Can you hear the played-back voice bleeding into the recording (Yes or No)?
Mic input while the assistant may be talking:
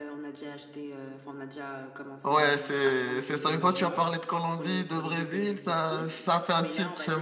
Yes